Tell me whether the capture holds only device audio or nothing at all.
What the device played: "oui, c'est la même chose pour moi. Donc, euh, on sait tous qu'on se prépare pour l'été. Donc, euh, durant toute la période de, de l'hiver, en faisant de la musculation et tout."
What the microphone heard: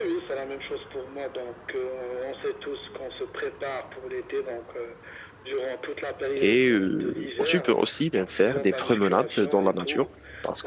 No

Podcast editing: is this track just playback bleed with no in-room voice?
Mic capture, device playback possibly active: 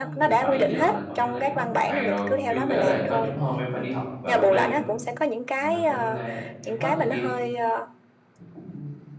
No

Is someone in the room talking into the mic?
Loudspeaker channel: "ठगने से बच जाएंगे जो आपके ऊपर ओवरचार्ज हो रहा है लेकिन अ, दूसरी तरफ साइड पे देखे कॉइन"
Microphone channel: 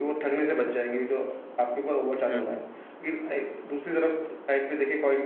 Yes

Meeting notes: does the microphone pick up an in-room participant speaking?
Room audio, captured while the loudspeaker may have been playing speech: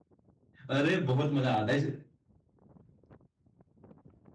Yes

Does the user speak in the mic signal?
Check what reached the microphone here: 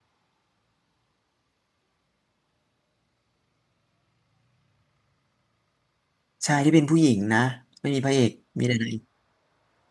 Yes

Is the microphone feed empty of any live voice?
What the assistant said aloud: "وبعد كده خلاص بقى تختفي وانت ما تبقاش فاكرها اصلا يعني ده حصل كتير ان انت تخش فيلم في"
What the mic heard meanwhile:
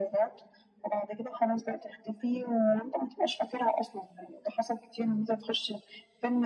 Yes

